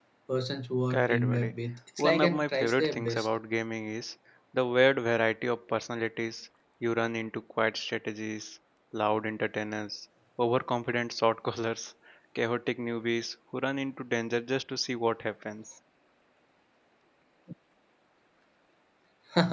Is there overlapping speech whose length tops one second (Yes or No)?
Yes